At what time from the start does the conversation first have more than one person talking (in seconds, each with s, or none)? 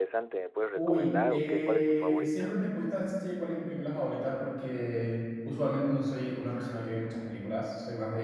0.8 s